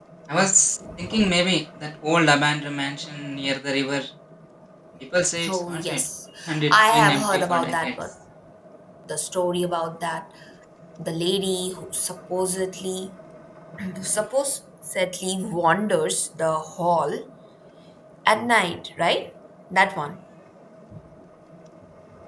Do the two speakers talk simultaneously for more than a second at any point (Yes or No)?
Yes